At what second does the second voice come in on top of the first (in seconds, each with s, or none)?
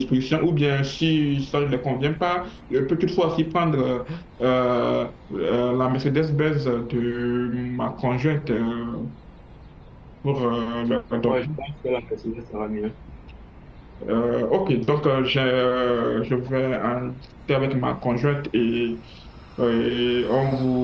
none